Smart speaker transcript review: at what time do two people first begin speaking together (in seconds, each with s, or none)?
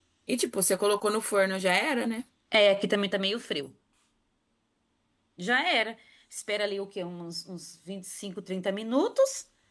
none